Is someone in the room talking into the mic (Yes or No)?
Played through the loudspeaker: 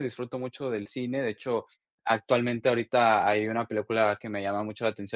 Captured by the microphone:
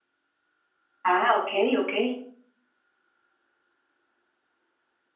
Yes